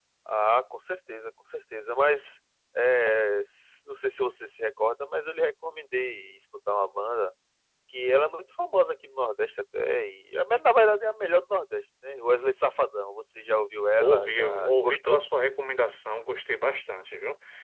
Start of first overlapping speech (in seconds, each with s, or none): 14.0 s